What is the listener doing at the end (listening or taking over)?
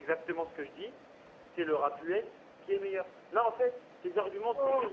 taking over